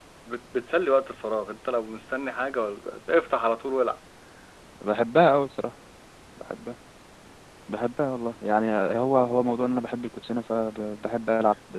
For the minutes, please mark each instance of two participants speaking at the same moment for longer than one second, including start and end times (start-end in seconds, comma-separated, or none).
none